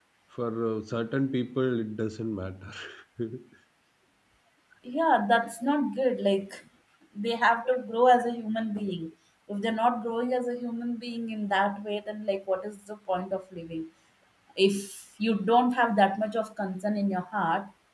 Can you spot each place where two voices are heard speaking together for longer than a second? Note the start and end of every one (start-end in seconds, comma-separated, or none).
none